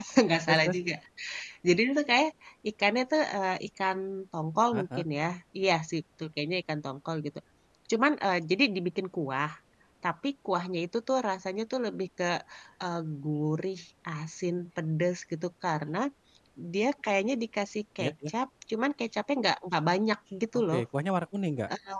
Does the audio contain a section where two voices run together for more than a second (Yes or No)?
No